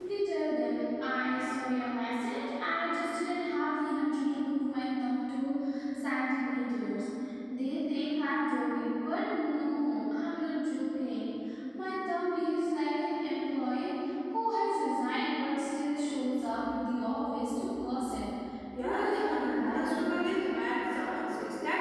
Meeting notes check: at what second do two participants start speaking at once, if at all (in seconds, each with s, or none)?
18.8 s